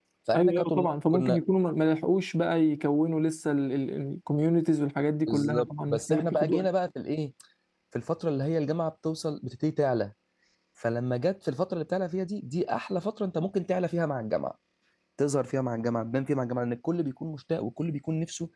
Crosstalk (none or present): present